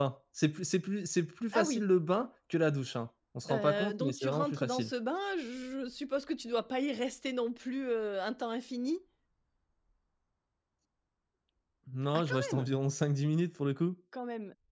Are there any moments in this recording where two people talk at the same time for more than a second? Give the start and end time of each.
3.5-4.9

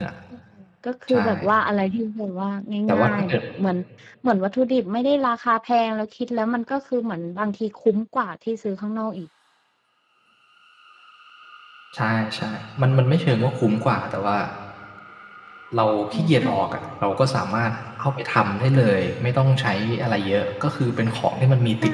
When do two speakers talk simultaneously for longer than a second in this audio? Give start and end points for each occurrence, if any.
none

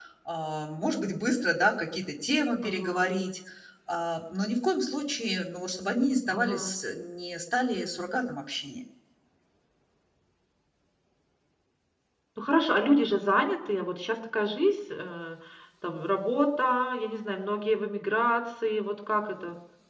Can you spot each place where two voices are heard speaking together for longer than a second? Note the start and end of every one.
none

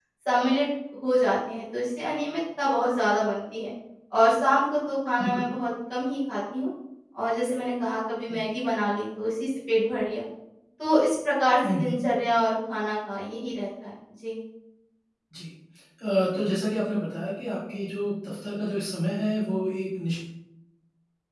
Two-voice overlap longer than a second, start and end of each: none

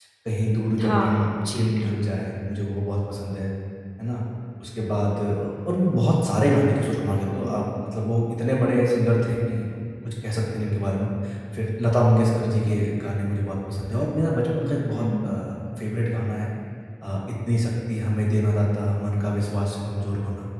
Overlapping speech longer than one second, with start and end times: 0.8-2.1

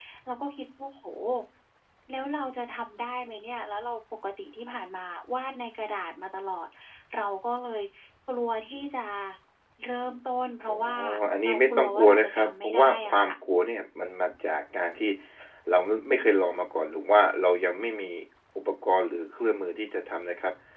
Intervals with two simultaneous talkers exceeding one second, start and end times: 11.4-13.3

